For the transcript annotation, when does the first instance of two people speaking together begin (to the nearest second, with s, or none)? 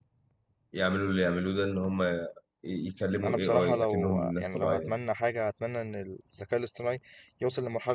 3 s